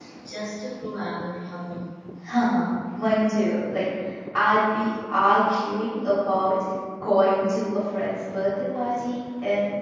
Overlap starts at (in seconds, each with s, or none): none